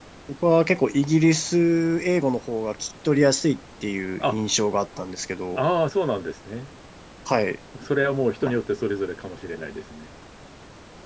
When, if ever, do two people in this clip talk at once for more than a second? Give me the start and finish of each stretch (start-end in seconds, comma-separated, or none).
none